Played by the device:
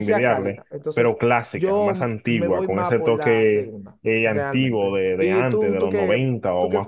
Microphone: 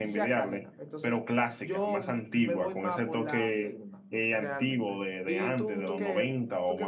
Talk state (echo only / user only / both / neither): echo only